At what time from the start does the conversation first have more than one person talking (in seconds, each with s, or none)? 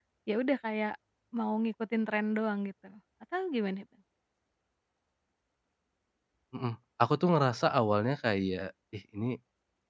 none